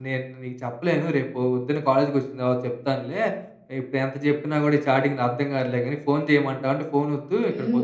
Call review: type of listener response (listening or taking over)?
taking over